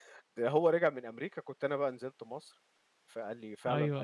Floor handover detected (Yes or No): No